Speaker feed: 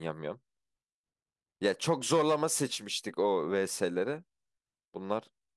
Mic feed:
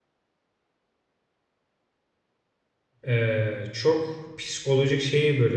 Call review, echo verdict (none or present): none